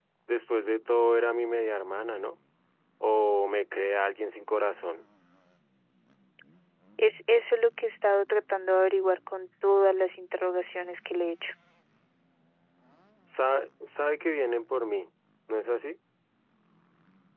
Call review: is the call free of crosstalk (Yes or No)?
Yes